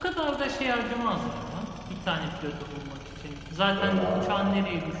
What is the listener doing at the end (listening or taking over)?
listening